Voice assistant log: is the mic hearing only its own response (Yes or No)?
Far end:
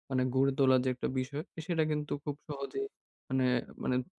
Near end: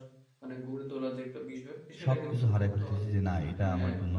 No